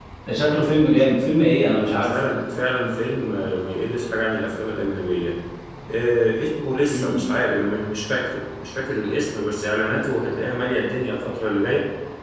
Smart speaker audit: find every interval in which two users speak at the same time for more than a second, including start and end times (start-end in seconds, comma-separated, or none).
none